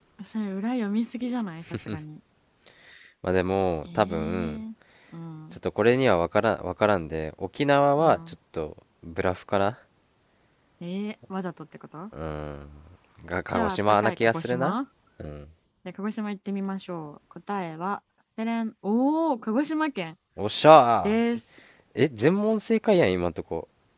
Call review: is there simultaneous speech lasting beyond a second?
Yes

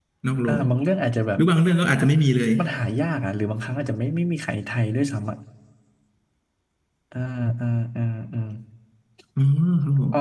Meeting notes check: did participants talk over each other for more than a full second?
No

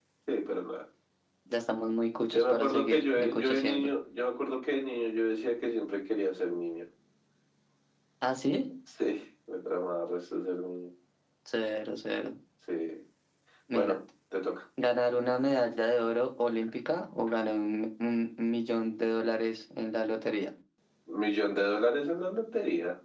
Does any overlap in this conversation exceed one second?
Yes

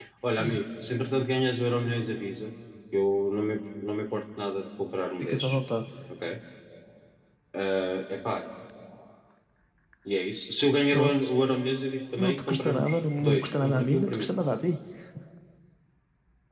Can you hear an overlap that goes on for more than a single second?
Yes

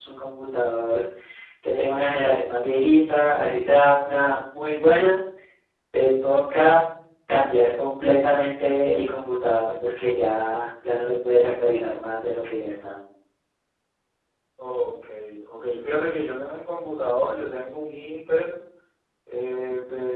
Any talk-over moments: No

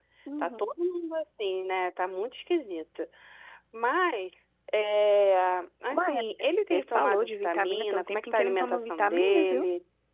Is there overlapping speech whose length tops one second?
Yes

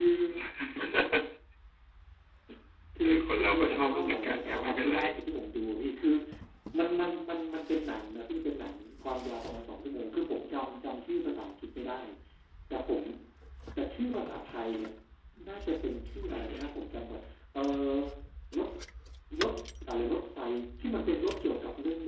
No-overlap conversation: No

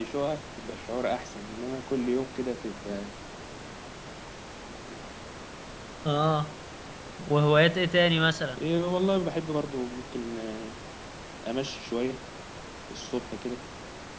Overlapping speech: No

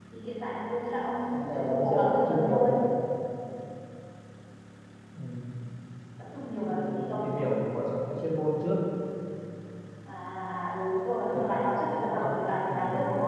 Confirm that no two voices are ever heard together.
No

